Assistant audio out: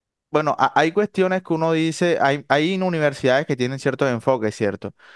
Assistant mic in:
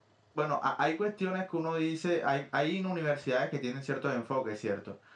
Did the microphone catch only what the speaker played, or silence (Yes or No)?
Yes